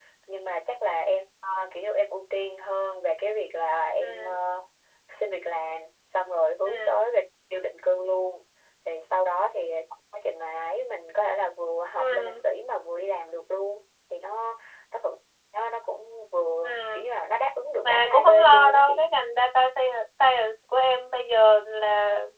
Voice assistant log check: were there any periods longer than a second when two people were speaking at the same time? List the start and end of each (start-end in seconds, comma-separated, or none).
17.8-19.0